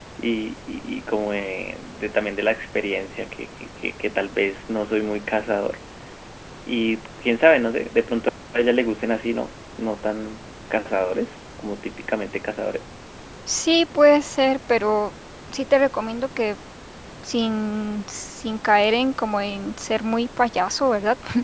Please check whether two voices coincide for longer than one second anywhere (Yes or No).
No